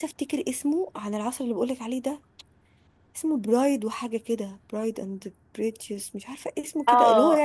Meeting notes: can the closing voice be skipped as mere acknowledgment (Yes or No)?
No